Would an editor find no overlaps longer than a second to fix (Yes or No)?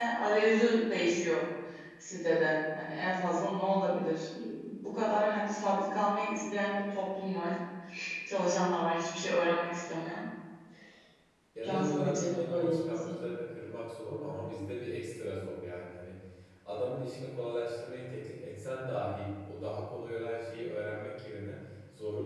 No